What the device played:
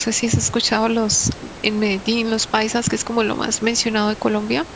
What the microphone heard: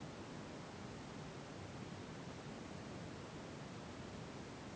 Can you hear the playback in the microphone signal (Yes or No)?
No